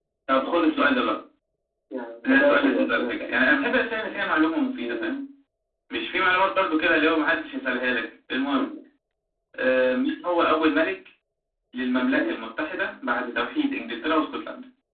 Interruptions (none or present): present